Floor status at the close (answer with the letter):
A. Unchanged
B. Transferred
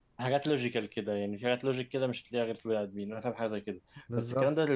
A